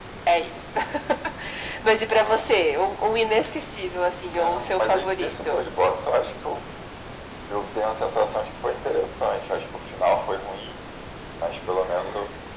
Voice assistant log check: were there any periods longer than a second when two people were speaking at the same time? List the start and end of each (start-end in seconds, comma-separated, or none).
4.3-5.6